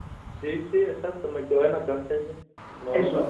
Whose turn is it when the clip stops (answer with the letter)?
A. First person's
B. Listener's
B